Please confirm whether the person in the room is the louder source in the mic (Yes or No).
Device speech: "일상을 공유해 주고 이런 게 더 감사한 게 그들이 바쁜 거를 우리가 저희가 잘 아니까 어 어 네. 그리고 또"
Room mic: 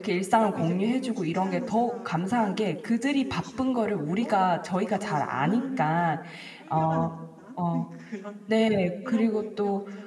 No